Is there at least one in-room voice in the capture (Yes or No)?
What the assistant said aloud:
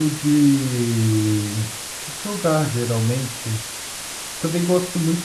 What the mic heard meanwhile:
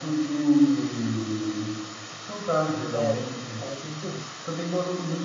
Yes